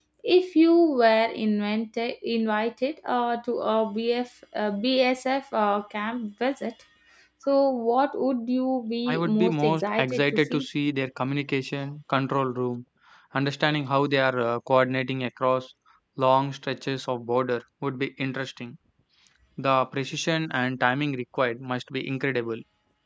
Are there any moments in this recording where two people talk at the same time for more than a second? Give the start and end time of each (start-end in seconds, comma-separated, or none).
9.1-10.7